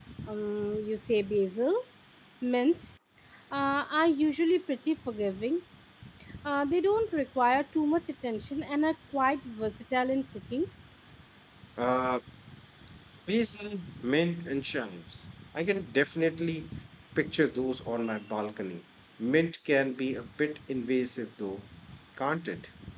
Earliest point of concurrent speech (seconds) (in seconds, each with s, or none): none